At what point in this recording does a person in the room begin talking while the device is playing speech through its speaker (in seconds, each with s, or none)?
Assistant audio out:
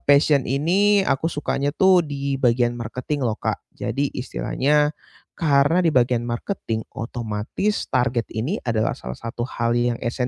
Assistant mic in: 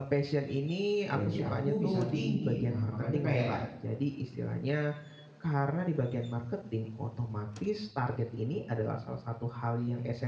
1.1 s